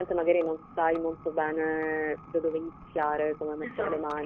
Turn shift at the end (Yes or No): No